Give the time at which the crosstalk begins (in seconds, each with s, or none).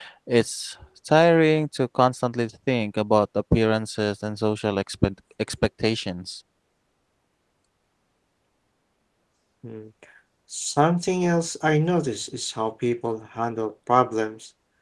none